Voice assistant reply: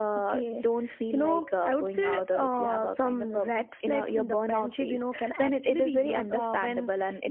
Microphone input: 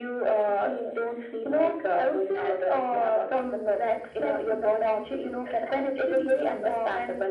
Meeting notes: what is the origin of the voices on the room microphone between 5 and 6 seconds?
echo only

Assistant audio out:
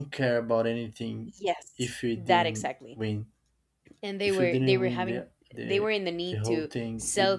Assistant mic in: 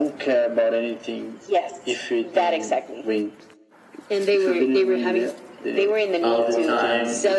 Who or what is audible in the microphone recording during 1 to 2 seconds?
echo only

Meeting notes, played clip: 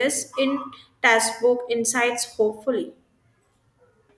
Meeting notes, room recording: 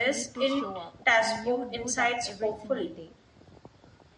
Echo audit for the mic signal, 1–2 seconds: both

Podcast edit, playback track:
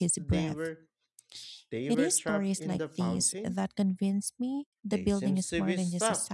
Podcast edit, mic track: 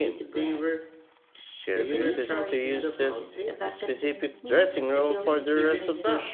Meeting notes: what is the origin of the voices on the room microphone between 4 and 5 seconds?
both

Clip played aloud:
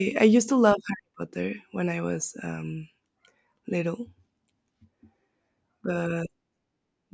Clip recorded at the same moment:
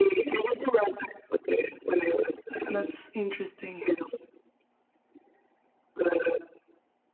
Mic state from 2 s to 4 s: both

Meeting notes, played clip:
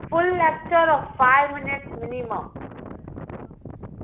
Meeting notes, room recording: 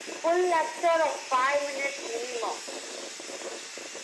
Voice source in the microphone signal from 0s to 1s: echo only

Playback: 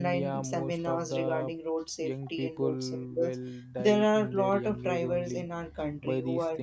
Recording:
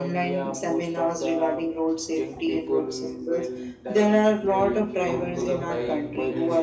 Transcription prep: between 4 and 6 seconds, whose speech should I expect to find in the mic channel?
both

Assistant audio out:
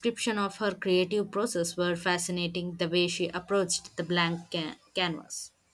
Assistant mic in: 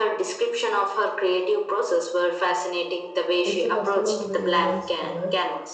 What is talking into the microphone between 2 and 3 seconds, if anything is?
echo only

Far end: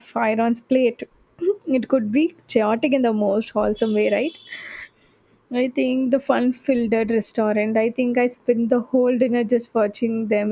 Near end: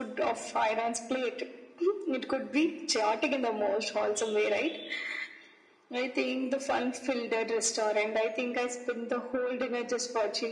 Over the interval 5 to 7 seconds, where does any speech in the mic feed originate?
echo only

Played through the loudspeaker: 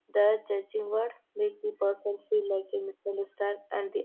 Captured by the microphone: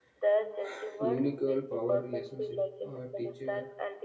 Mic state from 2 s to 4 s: both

